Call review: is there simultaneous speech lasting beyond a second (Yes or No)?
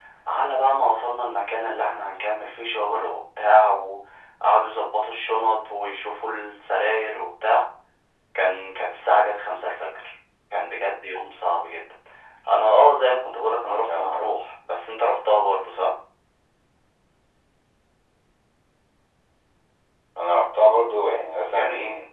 No